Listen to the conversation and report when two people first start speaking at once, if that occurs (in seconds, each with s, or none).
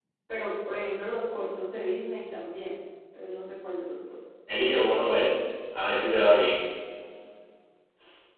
none